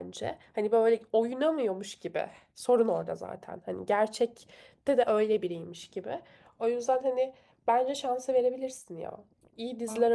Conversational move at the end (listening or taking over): listening